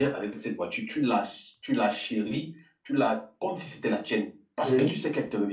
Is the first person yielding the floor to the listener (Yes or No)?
No